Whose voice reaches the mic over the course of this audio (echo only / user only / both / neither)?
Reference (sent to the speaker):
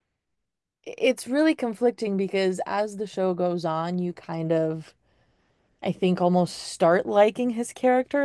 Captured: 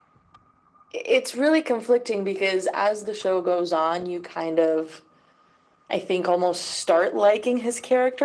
echo only